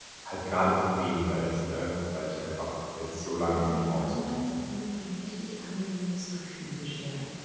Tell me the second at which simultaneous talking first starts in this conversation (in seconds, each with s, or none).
3.1 s